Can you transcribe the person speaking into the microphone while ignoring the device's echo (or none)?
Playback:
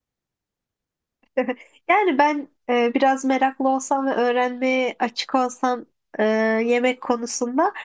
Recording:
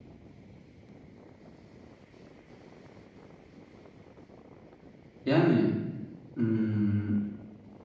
Yani hmm,